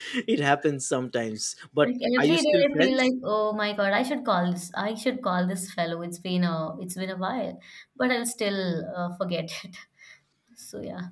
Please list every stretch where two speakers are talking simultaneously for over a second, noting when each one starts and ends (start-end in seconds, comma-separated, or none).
1.8-3.1